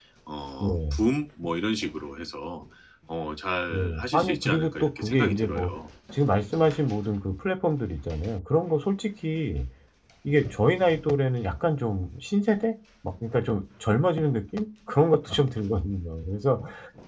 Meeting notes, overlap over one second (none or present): present